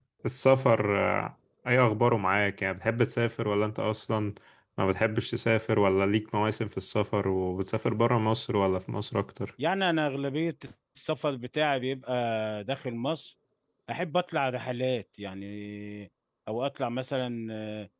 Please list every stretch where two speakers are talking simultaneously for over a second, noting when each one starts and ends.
none

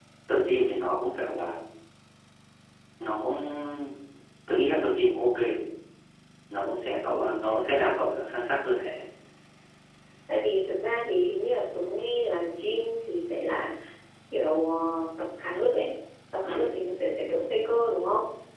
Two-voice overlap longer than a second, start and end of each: none

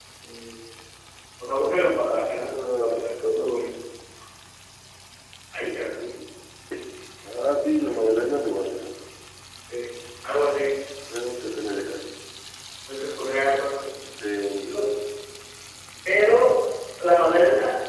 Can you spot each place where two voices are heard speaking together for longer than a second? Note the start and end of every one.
2.0-3.8

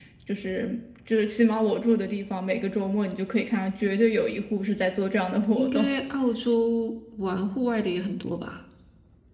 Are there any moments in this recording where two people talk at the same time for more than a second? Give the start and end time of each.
none

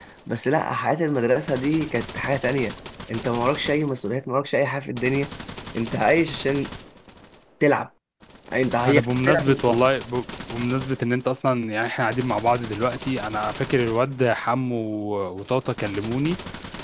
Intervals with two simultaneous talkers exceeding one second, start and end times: none

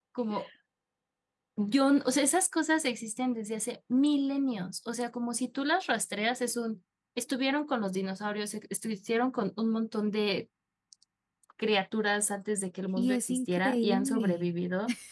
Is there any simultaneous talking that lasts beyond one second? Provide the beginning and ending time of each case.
13.0-14.5

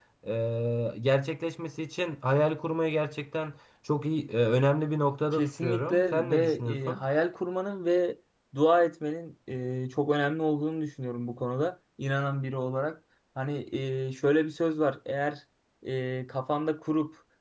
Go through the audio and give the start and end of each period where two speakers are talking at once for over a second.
5.3-7.0

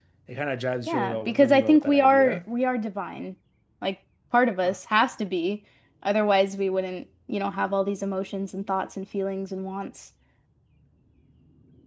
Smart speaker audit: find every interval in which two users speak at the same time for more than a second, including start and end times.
0.9-2.4

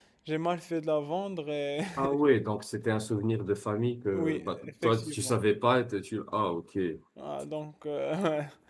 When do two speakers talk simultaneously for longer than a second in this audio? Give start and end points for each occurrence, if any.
4.1-5.4

